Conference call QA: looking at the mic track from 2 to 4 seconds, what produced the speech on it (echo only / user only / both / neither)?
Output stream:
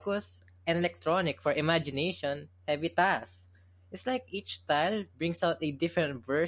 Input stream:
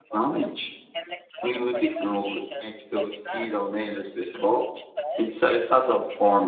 both